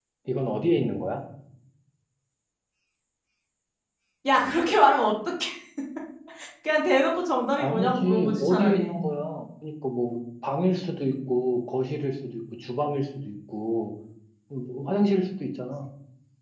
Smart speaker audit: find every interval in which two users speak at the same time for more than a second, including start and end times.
7.6-9.0

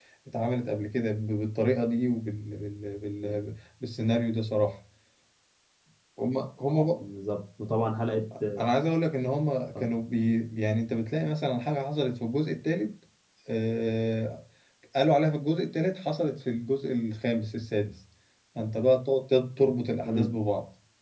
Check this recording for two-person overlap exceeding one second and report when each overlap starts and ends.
none

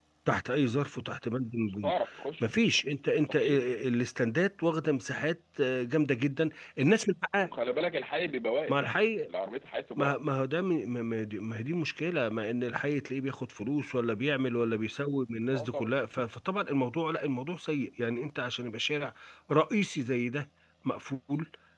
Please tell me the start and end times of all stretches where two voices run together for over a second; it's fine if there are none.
none

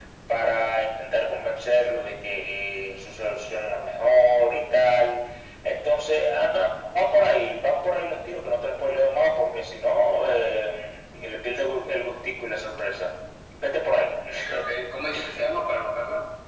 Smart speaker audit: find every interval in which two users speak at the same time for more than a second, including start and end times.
none

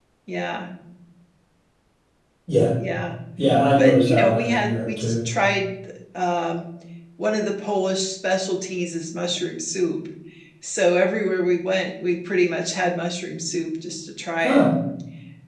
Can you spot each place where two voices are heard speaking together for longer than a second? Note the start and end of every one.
3.8-5.1

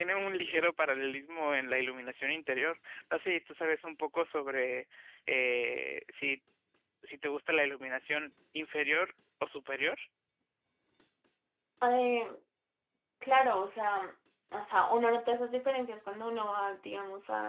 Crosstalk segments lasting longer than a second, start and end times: none

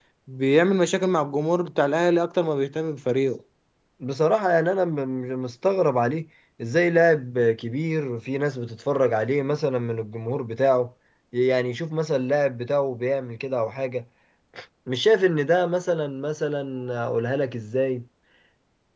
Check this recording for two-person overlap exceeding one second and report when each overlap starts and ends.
none

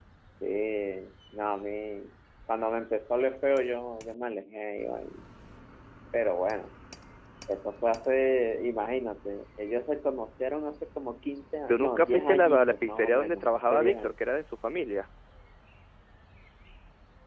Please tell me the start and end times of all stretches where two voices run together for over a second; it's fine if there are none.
11.7-14.1

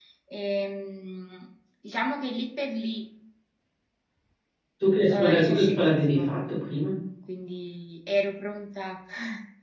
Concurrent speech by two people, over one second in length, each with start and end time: 5.1-6.3

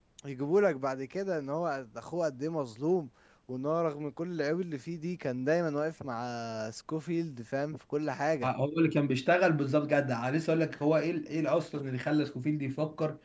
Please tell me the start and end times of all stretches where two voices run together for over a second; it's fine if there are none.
none

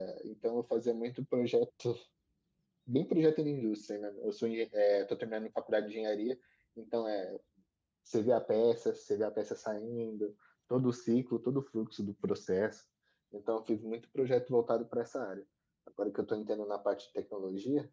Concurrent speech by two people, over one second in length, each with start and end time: none

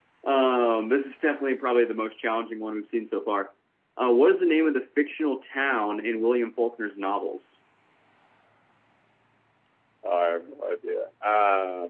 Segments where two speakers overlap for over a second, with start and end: none

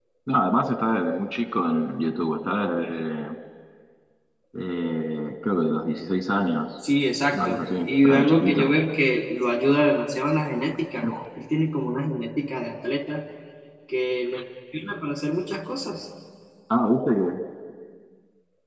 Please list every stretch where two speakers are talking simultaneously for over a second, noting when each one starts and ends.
7.3-8.7

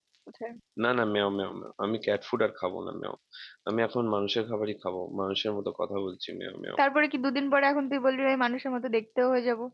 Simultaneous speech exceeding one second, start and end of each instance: none

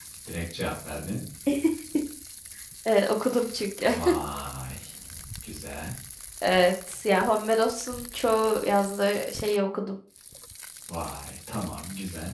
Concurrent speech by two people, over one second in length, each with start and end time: none

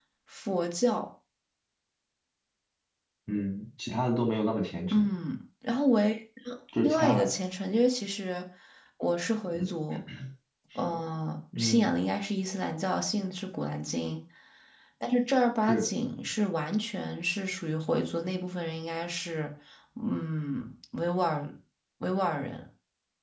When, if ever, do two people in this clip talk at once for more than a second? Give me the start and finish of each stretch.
none

